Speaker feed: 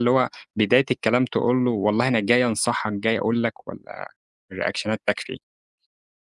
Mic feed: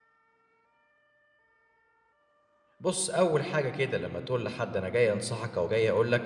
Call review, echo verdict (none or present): none